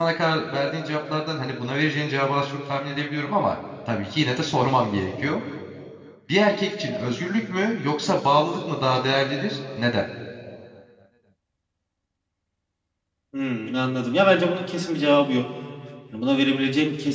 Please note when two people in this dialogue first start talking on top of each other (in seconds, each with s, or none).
none